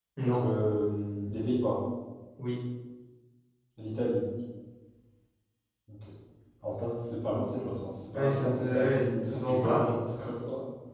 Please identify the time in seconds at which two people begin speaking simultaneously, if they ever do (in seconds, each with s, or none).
8.1 s